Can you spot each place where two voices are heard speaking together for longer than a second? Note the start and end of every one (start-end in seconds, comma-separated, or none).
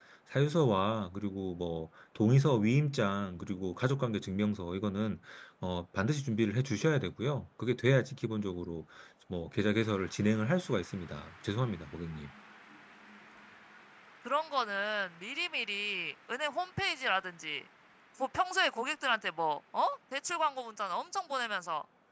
none